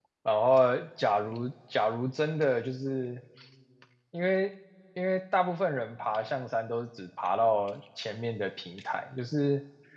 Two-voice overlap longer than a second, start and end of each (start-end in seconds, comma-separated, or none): none